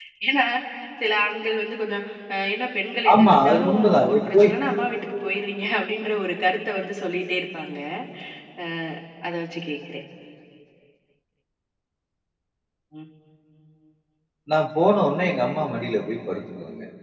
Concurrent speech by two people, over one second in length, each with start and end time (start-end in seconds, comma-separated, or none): 3.1-4.5